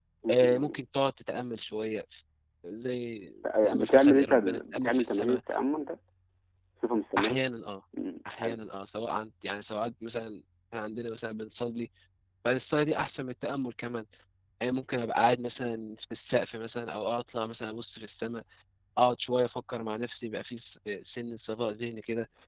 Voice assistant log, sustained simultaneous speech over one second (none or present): present